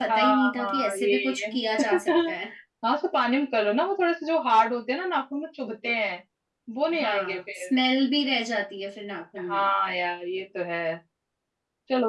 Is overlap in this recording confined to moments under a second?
No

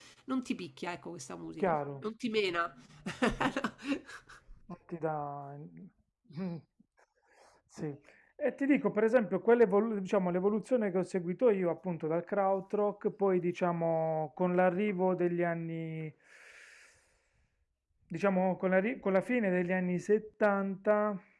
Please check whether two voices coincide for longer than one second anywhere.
No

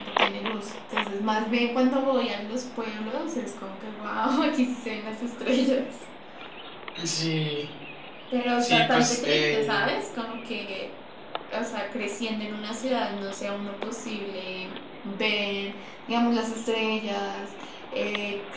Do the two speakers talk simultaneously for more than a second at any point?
Yes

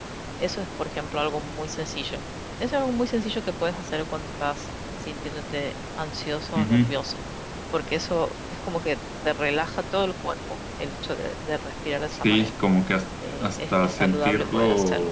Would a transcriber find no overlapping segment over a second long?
No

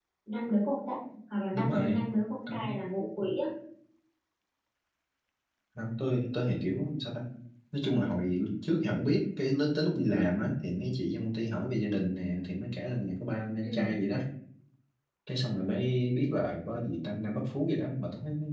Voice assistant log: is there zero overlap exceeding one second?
Yes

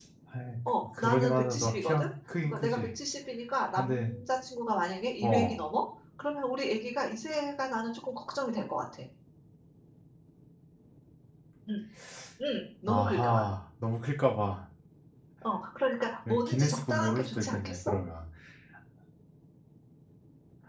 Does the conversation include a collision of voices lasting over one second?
Yes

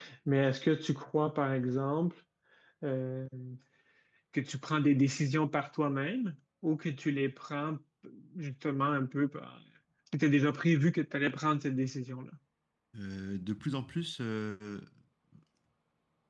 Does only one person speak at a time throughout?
Yes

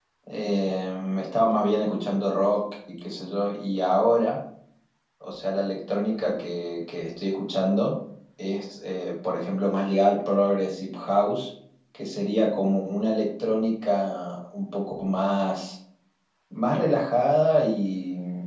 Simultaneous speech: No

